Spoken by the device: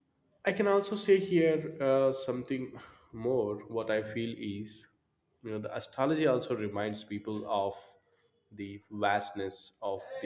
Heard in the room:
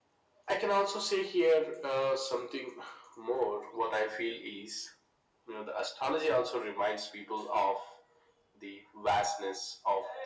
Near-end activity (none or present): none